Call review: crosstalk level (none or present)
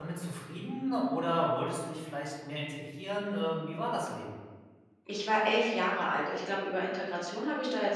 none